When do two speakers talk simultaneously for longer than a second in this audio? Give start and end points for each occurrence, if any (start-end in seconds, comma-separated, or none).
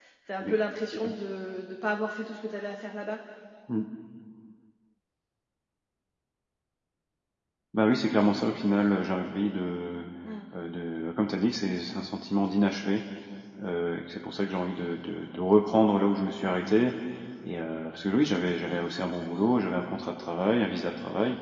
none